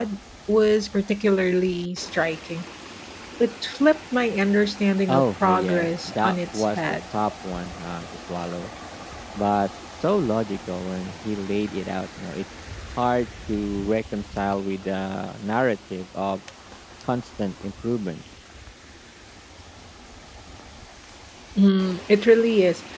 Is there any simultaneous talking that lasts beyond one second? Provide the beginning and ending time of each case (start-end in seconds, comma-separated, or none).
5.1-7.0